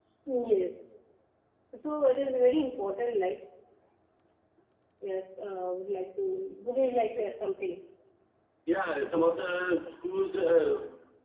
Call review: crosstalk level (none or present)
none